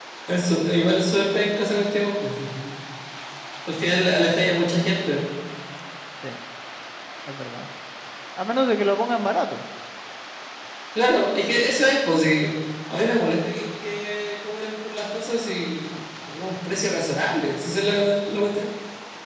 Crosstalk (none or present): none